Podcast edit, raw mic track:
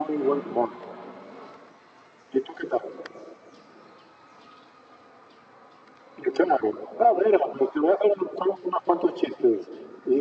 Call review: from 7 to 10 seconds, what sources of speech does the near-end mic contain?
echo only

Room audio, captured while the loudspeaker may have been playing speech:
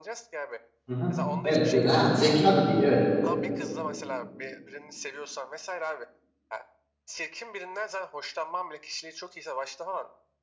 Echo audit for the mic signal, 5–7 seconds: echo only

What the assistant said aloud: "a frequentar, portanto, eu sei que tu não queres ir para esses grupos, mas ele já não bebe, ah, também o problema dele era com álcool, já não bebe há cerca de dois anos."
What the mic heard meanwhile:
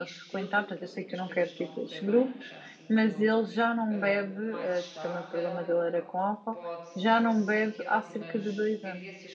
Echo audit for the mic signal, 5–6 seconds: both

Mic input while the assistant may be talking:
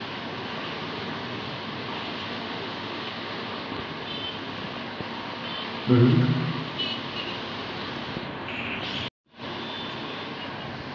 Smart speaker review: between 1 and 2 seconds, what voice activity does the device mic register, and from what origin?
neither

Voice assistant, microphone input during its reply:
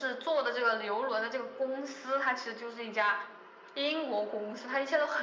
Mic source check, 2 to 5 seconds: echo only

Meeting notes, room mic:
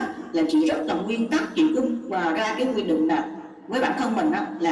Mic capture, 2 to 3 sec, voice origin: echo only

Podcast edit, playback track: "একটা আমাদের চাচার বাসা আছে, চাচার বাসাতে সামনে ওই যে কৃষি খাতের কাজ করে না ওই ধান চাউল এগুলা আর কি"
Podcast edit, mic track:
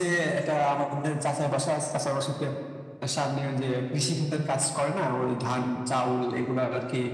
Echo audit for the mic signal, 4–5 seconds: echo only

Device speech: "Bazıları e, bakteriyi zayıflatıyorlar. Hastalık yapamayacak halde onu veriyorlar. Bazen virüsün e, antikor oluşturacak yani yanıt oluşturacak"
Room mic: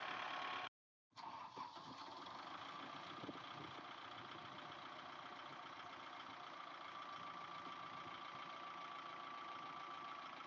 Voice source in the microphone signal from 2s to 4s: neither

